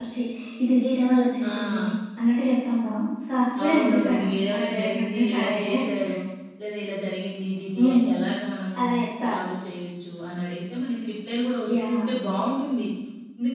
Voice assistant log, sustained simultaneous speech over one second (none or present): present